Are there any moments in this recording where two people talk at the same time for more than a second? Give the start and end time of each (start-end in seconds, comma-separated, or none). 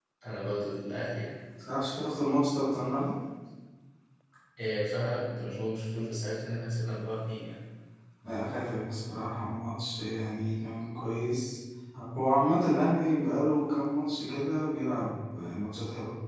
none